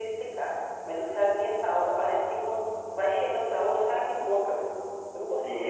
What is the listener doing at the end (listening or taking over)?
taking over